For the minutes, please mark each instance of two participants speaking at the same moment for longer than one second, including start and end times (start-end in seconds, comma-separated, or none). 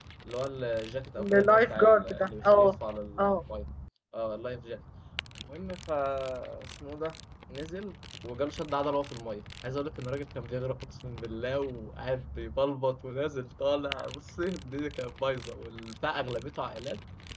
1.2-2.8